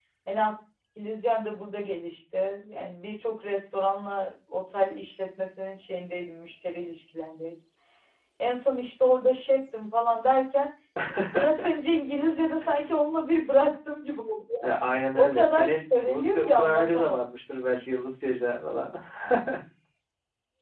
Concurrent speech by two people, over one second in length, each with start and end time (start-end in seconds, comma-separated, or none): 15.2-17.2